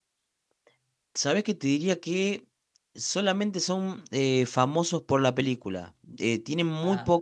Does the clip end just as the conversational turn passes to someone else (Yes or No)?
No